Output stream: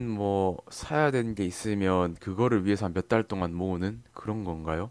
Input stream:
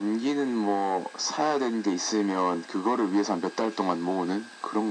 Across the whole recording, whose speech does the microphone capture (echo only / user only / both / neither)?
echo only